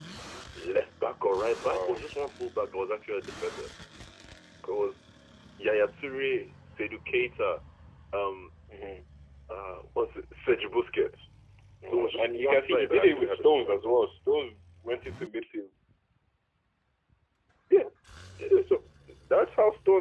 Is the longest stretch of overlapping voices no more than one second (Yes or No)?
No